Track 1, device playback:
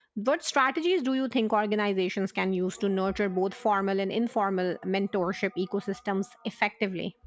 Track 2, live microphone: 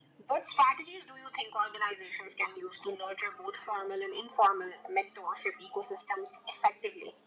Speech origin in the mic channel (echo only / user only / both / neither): echo only